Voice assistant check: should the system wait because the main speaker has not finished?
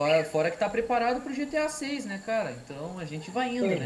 No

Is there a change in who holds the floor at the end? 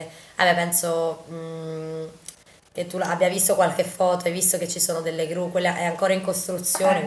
No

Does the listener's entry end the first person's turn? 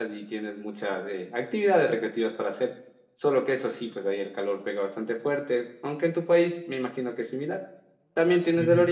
No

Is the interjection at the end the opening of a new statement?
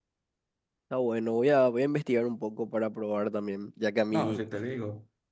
Yes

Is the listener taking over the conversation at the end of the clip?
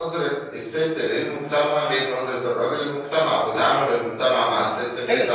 Yes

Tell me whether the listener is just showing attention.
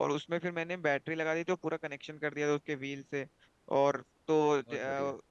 Yes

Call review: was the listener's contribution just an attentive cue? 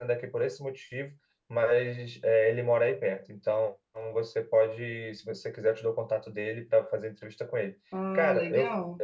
Yes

